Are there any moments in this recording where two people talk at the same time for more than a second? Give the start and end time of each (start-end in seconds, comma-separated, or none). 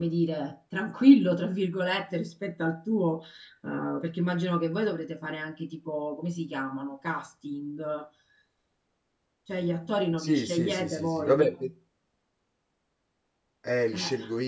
10.2-11.5